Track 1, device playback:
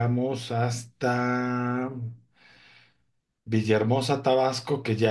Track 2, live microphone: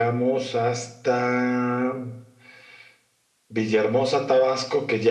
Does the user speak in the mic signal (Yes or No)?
No